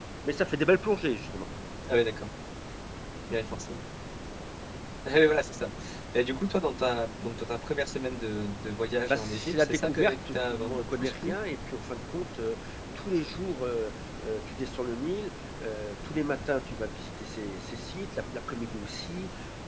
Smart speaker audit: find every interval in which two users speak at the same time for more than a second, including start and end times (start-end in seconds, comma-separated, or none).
9.1-11.3